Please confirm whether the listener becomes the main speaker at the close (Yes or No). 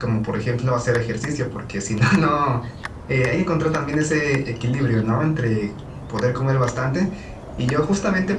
No